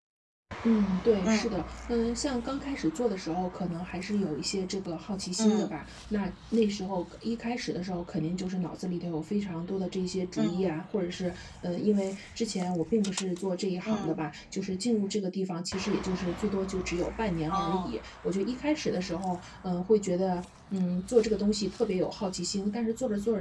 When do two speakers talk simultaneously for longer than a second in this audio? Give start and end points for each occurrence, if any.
none

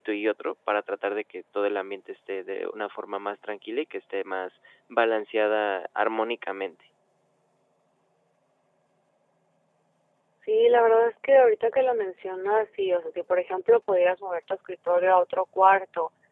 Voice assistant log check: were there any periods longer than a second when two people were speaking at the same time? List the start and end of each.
none

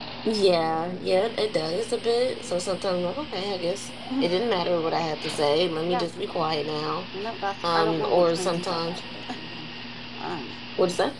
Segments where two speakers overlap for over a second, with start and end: 7.7-9.0

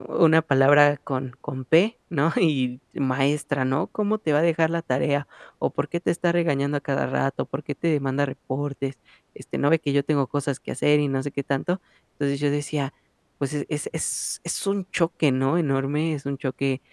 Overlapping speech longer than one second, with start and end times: none

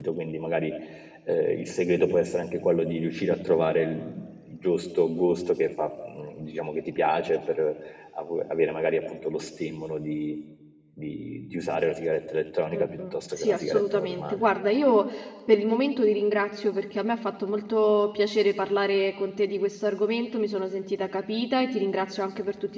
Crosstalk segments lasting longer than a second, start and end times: 12.7-14.4

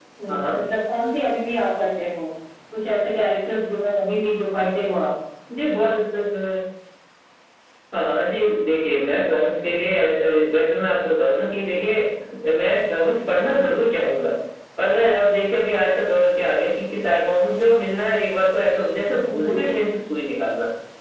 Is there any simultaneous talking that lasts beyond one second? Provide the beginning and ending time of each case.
none

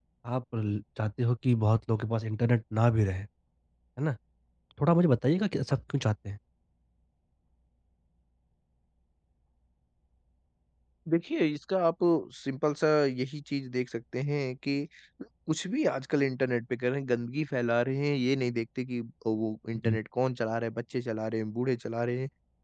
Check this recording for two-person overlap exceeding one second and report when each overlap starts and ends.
none

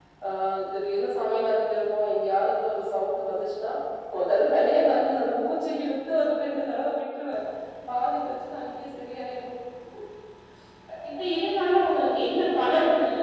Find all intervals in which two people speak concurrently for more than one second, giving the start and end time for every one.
none

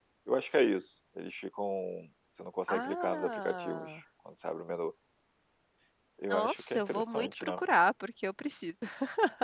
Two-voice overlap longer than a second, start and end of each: 2.7-4.0, 6.3-7.6

